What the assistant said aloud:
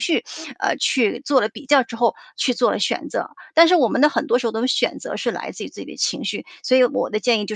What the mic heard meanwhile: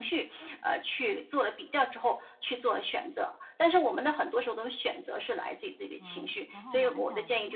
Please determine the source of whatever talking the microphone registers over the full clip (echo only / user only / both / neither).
both